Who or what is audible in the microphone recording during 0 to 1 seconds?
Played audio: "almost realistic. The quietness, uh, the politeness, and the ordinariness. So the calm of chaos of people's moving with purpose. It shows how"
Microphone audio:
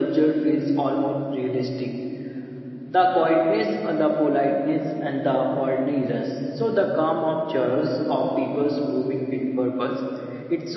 echo only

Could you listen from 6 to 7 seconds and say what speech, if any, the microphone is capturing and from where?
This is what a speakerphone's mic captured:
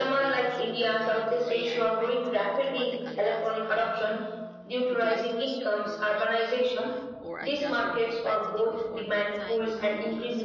both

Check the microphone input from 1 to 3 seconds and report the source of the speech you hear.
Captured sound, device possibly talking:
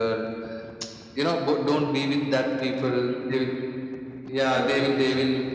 echo only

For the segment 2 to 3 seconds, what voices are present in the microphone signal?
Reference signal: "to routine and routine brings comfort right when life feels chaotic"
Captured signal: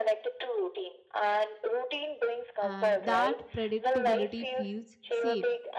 both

